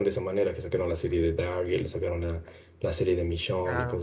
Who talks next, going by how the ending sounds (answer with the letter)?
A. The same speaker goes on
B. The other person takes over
A